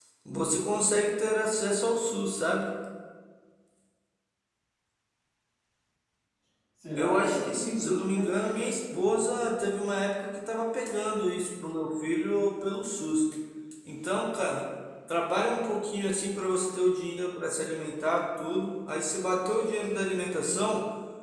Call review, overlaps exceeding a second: present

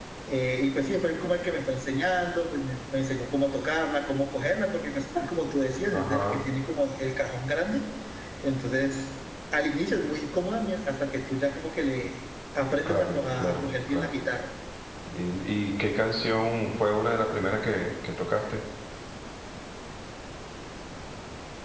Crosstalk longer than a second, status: present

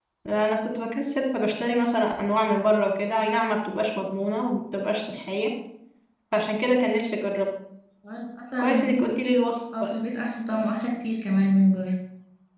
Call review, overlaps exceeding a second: none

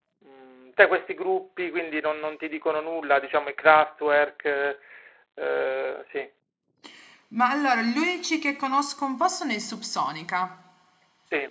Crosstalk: none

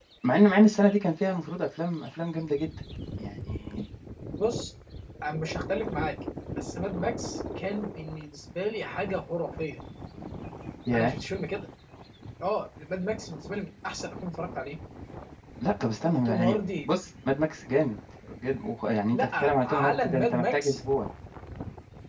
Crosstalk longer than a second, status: present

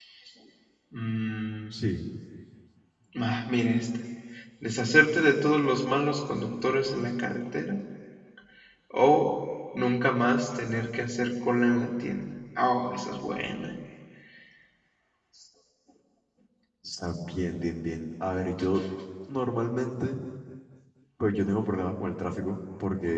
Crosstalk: none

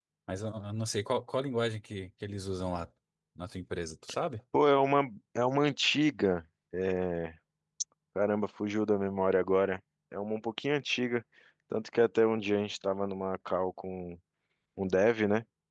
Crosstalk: none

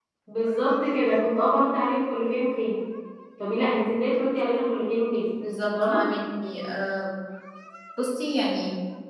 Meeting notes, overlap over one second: none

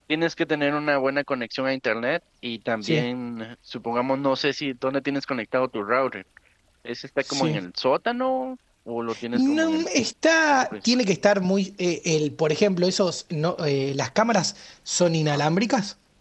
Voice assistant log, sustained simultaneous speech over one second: none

